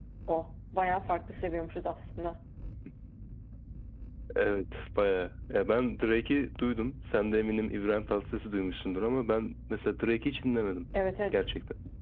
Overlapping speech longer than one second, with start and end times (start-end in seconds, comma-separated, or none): none